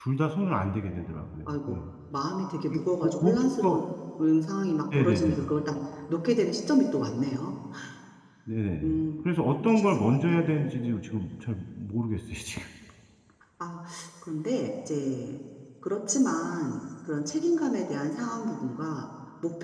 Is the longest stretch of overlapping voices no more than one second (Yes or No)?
No